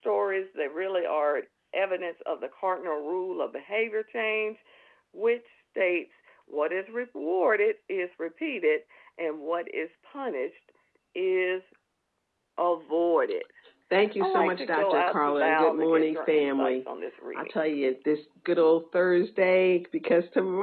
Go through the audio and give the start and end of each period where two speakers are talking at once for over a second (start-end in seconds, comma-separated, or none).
14.2-16.8